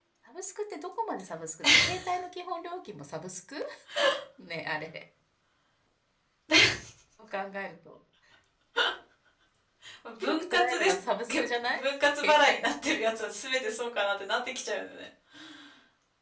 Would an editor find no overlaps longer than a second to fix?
No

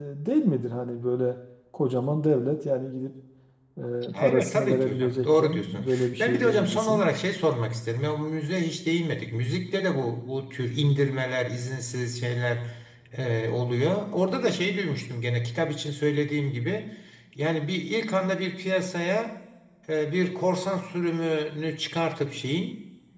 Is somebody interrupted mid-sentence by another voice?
Yes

